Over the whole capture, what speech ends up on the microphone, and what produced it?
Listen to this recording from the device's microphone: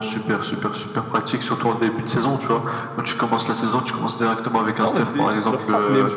both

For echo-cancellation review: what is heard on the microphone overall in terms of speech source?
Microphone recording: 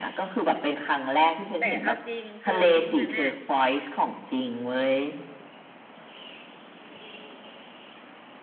both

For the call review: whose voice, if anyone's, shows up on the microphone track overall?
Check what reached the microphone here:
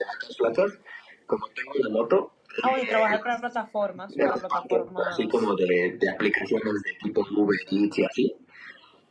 both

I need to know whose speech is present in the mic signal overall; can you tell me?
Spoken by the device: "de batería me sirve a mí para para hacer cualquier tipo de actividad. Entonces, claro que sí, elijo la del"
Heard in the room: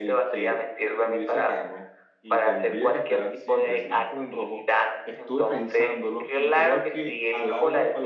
both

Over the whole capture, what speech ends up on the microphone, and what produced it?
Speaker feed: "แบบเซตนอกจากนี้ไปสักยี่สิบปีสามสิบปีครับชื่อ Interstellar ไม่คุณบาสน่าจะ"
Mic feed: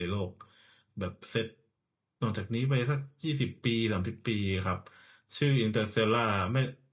echo only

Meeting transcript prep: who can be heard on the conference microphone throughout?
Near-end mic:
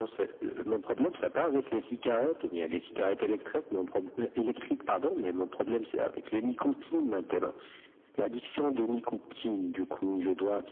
echo only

